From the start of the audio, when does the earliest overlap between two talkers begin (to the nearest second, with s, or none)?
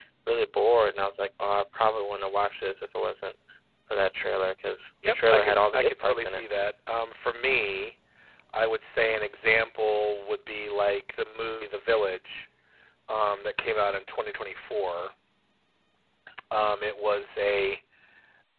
5 s